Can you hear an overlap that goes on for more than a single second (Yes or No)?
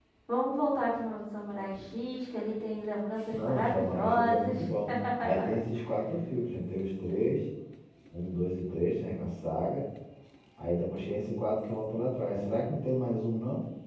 Yes